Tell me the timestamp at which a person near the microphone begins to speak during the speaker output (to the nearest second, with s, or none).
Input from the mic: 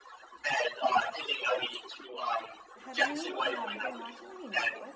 3 s